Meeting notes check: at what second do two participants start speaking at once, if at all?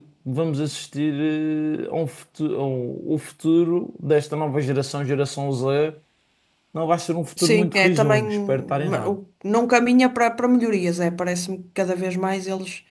7.4 s

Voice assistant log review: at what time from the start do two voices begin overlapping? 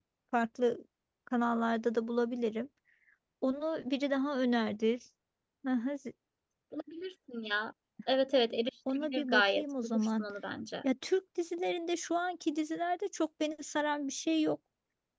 8.9 s

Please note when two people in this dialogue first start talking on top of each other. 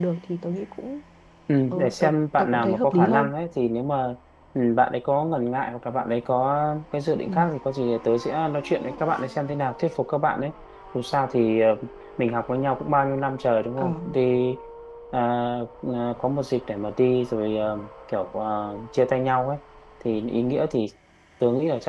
1.7 s

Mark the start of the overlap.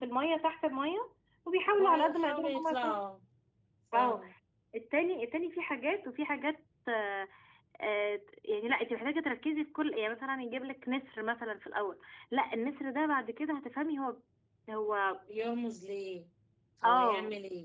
1.7 s

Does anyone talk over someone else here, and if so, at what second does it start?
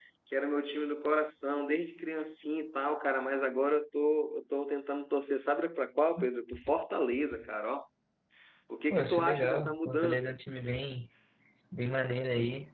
8.9 s

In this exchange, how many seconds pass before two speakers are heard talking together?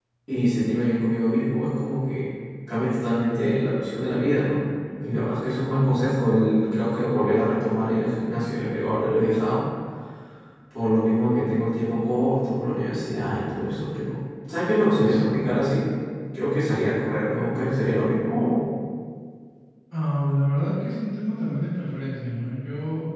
none

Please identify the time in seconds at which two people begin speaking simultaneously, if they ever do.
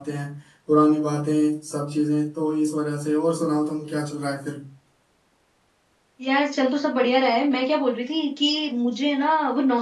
none

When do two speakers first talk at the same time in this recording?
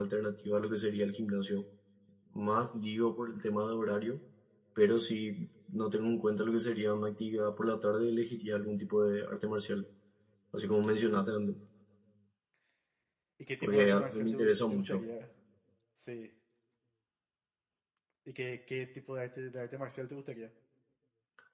13.6 s

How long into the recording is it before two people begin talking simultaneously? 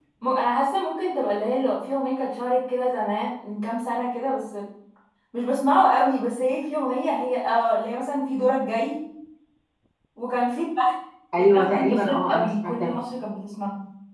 11.4 s

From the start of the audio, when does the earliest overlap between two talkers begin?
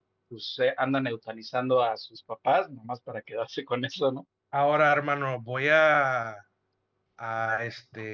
none

